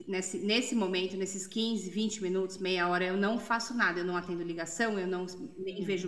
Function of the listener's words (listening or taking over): listening